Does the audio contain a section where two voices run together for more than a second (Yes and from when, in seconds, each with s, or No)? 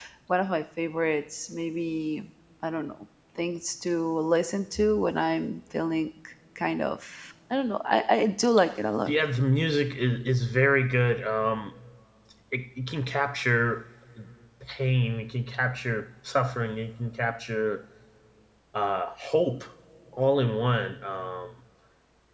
No